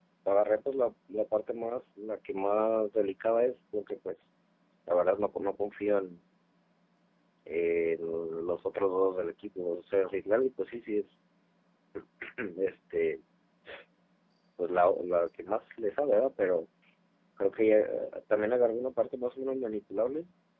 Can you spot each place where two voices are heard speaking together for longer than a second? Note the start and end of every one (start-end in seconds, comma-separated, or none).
none